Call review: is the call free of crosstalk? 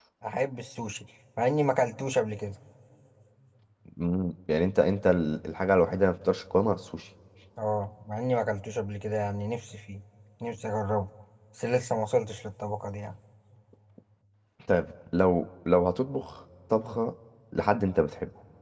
Yes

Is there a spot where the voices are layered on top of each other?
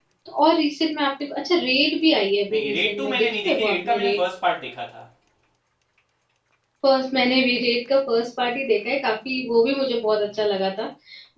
Yes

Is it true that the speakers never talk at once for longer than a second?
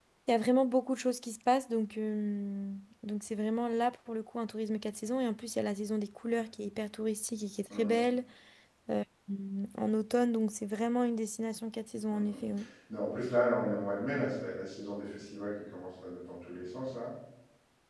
Yes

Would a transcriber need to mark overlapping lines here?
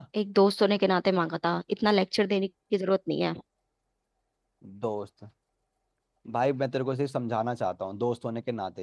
No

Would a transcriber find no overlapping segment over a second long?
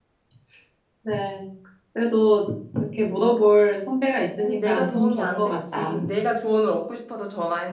No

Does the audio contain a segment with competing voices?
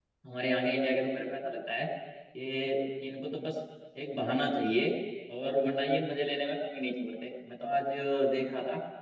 No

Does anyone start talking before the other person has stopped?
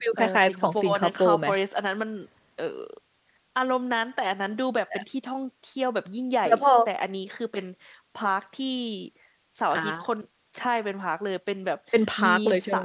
Yes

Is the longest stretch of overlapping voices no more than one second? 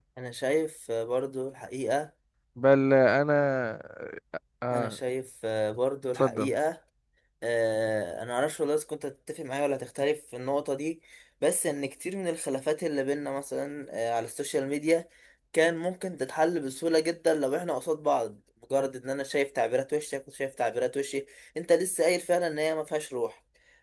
Yes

